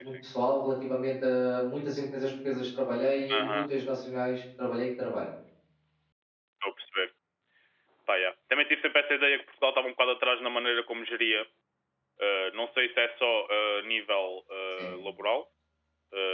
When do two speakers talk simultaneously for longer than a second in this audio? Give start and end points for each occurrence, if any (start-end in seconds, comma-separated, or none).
none